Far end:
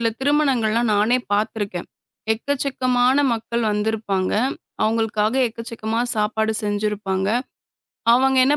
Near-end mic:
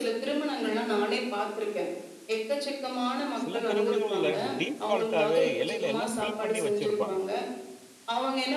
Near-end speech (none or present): present